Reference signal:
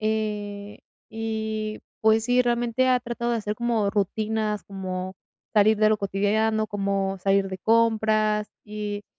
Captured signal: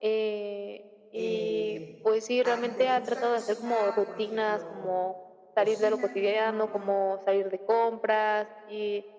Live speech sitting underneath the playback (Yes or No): Yes